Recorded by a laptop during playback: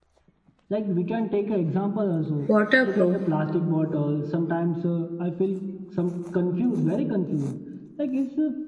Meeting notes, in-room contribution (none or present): present